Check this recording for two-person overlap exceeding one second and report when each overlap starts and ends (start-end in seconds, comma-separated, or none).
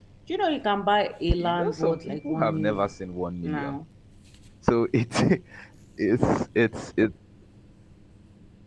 1.4-2.9